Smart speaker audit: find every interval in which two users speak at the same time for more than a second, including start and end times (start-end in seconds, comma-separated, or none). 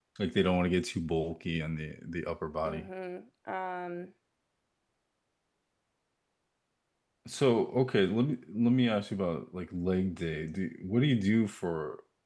none